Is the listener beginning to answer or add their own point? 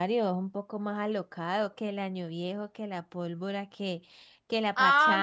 Yes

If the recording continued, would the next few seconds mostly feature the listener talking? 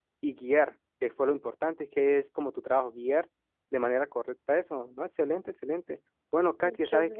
No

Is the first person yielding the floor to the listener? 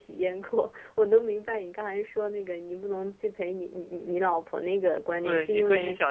Yes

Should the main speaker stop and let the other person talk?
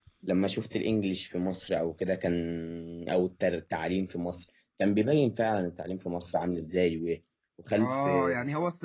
Yes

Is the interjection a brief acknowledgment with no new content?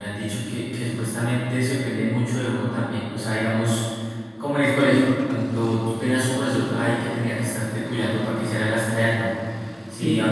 Yes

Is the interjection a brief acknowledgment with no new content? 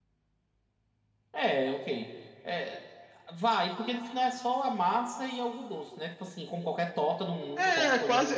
No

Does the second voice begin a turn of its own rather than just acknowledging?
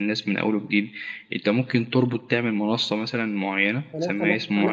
Yes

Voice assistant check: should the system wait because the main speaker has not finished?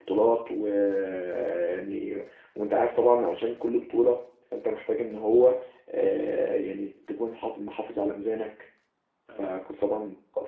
Yes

